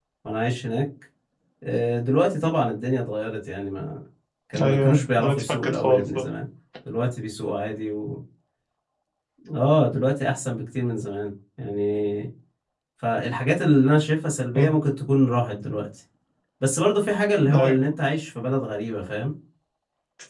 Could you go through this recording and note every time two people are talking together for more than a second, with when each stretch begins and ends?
4.6-6.2

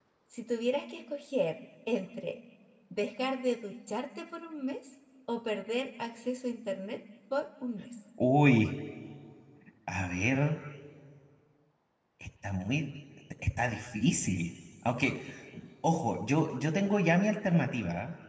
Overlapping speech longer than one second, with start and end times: none

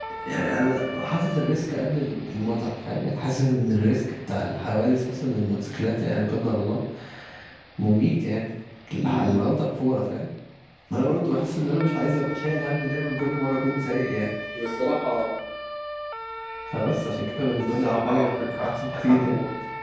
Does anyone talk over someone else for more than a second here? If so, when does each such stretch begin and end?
17.8-19.3

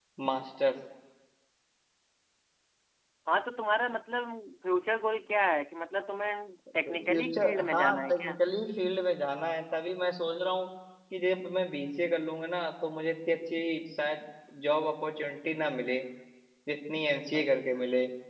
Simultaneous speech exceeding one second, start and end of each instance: 6.8-8.4

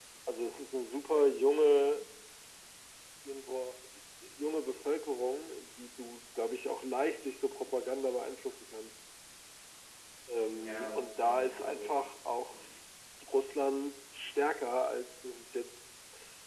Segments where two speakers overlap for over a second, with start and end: 10.6-11.9

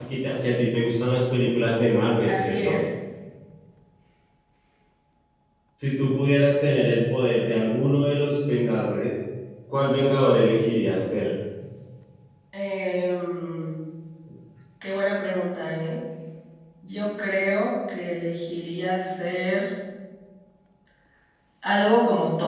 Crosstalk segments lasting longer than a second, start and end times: none

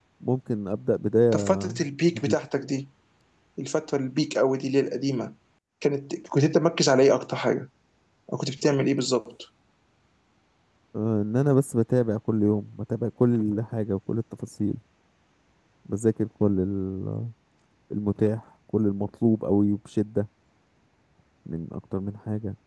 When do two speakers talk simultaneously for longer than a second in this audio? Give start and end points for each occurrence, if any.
none

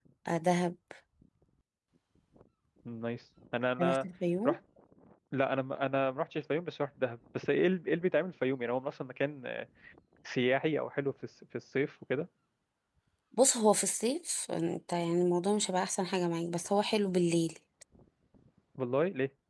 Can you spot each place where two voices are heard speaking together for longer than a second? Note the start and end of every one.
none

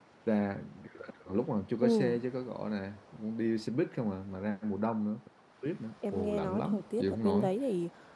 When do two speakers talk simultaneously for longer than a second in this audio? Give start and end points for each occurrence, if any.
6.1-7.5

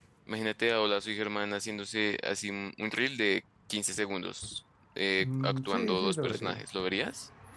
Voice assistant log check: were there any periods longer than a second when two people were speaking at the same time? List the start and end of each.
5.2-6.6

